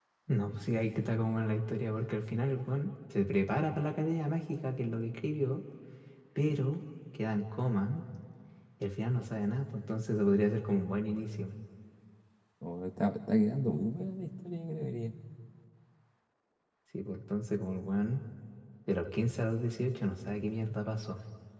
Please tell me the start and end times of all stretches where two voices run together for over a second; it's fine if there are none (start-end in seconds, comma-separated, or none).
none